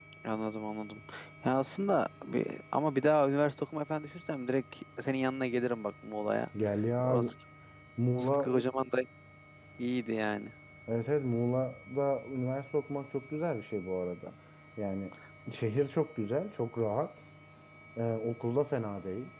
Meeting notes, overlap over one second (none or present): none